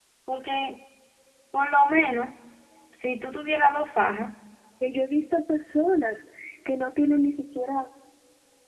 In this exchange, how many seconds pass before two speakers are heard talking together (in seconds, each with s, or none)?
none